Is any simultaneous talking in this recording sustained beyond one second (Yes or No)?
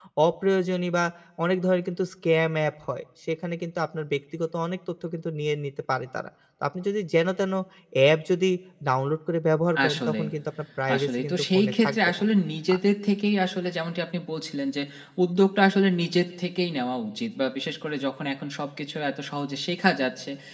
Yes